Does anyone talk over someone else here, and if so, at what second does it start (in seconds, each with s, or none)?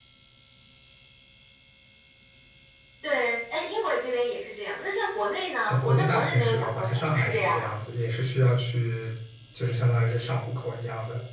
5.7 s